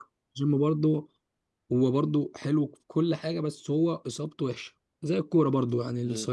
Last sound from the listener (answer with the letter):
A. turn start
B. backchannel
B